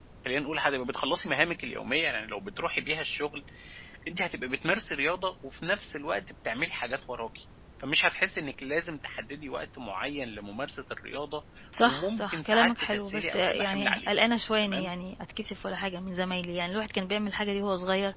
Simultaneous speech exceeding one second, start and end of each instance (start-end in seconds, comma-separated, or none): 11.8-14.1